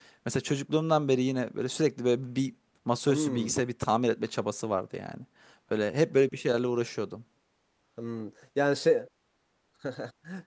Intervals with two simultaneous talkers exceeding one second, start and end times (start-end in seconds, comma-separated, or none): none